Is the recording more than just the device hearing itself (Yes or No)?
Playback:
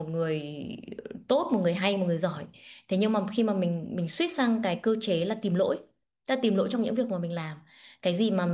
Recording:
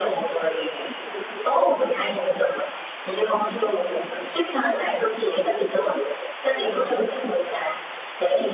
No